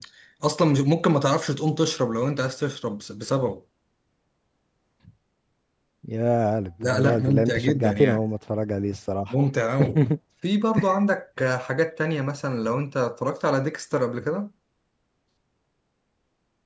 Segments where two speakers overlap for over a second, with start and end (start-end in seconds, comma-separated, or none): 6.8-8.2